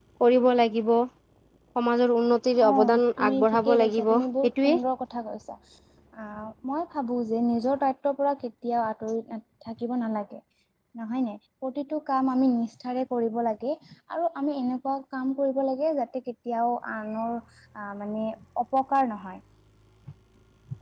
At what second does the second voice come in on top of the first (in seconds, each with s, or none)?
2.5 s